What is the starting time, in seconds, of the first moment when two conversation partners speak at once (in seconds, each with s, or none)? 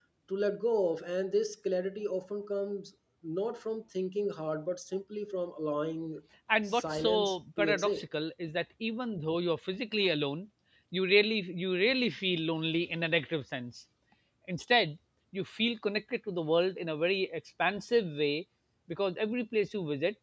6.6 s